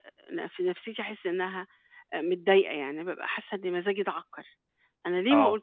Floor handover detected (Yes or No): No